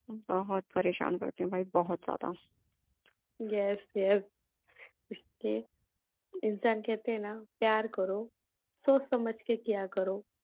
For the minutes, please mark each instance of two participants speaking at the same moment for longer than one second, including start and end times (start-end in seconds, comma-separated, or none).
none